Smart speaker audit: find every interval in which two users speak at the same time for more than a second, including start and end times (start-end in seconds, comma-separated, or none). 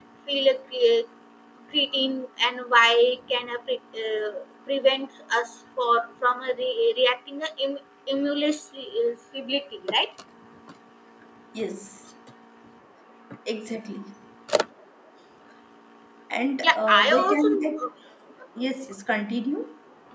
16.6-17.9